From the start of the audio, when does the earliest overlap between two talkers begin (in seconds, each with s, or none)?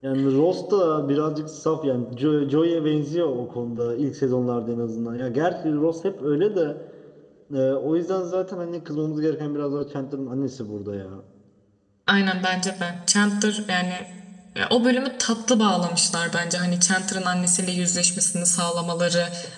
none